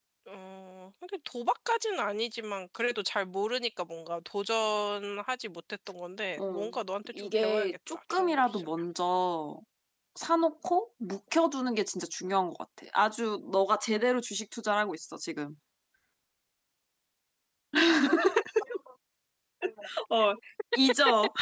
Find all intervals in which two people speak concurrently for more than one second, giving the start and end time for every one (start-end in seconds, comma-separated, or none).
7.2-8.7